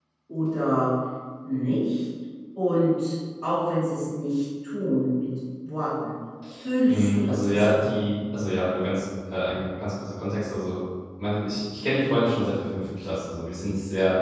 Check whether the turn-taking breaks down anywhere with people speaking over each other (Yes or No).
Yes